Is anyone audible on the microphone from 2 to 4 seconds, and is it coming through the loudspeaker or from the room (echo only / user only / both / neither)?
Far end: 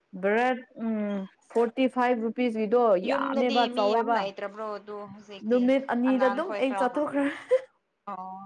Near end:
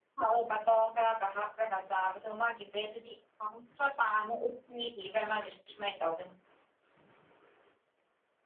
user only